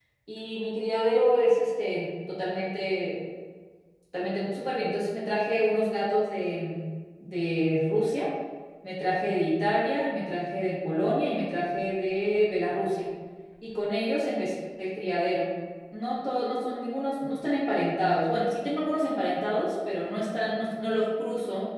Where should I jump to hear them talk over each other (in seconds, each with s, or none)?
none